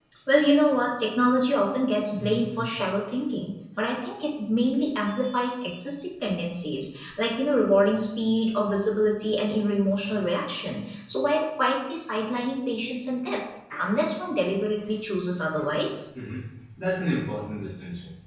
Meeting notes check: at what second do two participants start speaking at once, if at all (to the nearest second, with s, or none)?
none